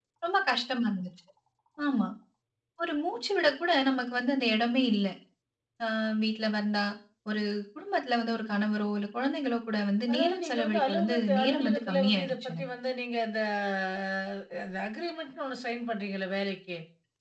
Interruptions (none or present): present